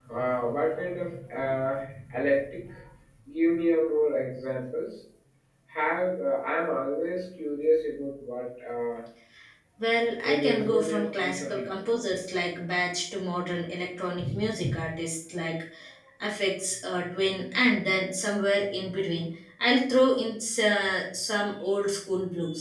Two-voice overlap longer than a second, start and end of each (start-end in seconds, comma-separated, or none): 10.2-11.7